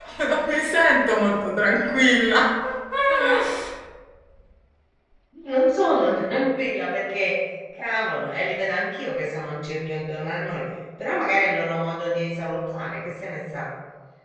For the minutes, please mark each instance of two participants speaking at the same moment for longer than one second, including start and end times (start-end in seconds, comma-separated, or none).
none